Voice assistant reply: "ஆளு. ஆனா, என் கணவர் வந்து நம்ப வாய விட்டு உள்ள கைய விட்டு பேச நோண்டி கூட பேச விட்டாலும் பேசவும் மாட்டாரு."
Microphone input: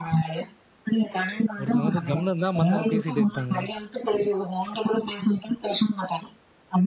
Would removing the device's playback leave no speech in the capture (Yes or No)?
No